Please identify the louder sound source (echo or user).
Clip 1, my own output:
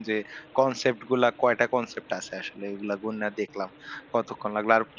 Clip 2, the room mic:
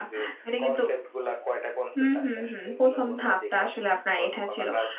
user